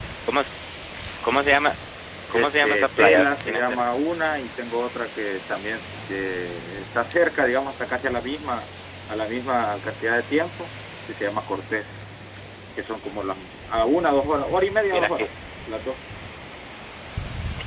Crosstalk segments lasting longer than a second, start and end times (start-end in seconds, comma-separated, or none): 2.3-3.8